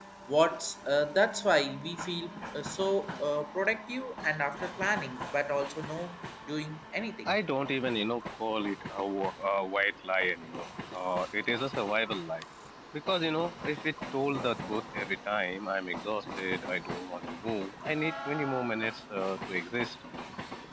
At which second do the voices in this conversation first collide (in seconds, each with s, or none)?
none